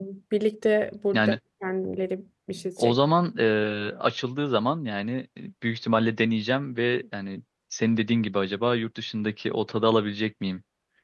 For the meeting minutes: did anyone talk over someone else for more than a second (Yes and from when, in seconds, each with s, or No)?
No